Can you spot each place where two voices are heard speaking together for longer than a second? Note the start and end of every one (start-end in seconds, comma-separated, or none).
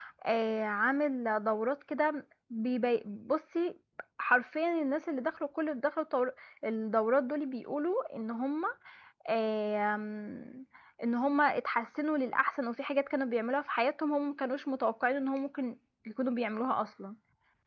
none